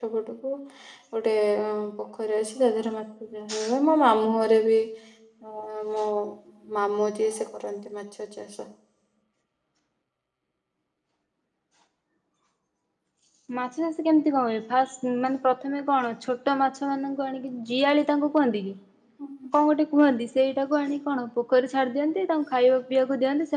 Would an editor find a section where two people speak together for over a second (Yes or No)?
No